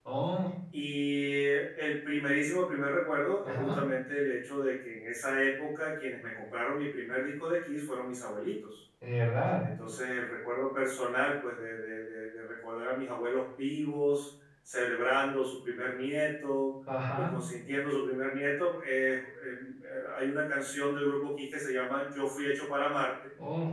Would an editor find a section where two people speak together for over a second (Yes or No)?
No